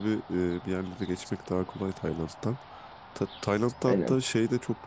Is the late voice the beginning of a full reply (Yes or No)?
No